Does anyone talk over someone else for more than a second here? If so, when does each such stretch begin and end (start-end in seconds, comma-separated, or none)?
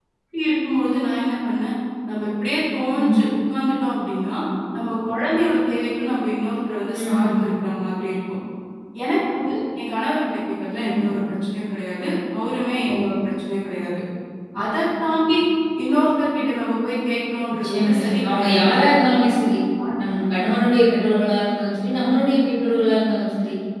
17.5-18.9